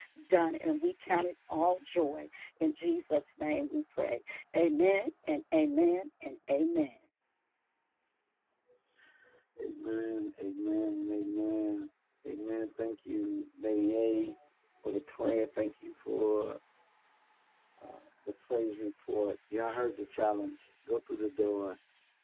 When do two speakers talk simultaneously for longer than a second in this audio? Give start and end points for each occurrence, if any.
none

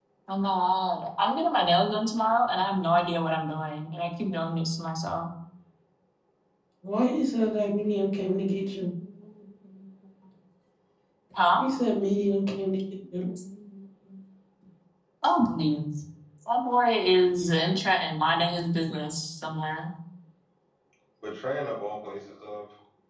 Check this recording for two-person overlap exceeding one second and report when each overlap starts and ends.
none

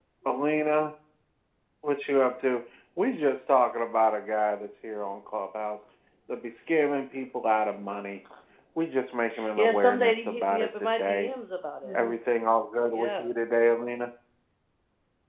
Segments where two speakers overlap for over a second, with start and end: 9.6-11.3

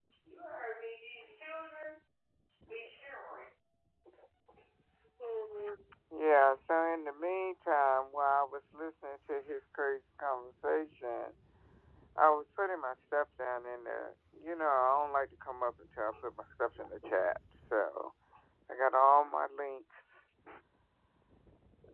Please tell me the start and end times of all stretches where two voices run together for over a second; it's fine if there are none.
none

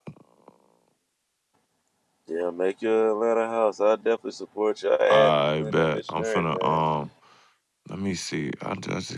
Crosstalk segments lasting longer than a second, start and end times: 5.1-6.8

